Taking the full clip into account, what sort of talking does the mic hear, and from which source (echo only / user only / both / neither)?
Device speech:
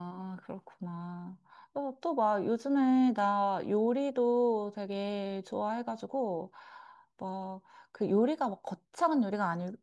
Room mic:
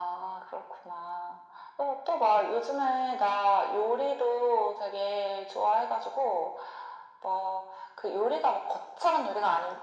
echo only